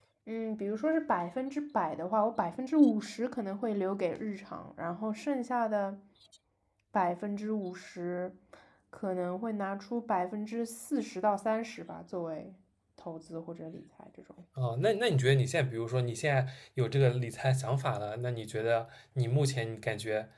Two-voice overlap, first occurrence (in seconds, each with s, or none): none